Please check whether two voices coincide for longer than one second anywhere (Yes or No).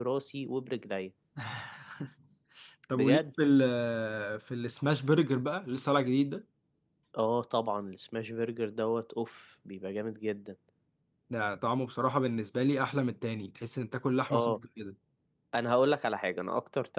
No